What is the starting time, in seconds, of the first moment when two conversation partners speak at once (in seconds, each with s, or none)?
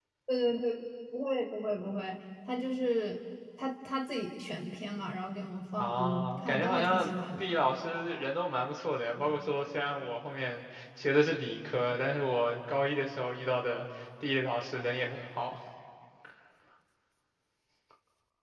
5.8 s